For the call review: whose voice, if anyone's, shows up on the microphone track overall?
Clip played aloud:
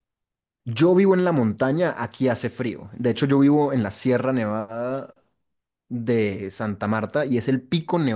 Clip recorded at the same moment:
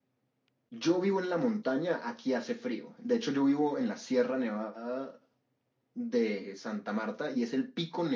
echo only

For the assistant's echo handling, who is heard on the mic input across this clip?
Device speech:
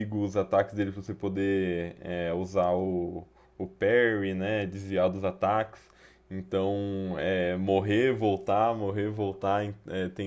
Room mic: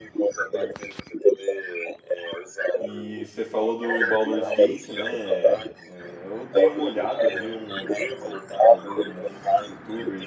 both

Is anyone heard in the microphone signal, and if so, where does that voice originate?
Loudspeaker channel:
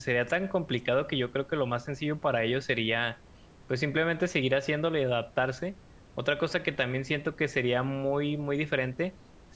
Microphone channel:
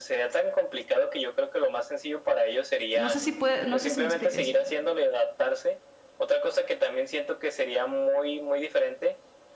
both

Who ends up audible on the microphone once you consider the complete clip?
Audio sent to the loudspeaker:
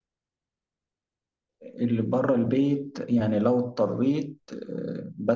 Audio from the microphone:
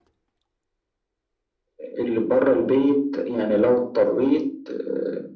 echo only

